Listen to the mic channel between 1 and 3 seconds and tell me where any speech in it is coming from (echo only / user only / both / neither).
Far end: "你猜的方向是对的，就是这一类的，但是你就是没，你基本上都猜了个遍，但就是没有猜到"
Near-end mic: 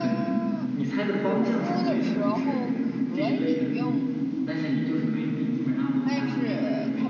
both